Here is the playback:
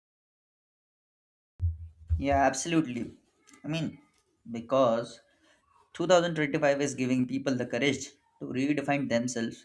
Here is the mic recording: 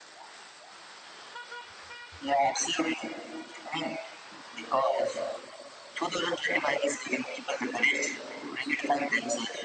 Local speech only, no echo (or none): none